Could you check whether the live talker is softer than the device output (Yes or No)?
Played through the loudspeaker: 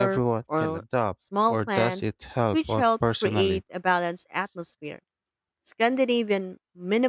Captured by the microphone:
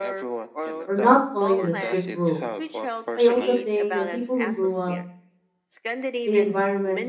No